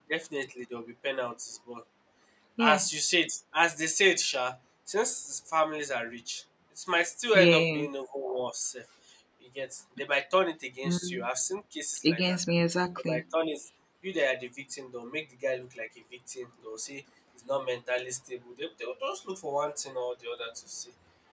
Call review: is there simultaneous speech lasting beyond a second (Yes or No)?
No